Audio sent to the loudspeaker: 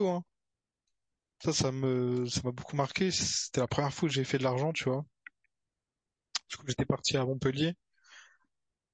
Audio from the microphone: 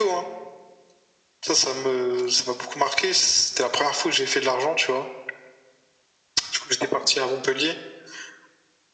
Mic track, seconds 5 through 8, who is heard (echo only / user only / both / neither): echo only